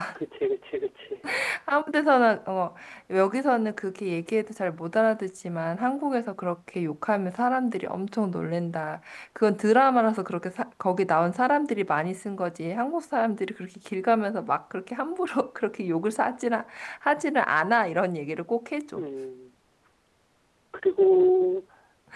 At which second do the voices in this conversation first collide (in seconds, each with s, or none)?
none